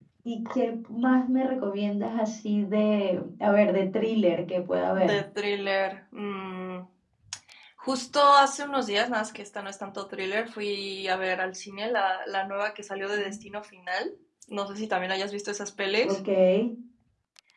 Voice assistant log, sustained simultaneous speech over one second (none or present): none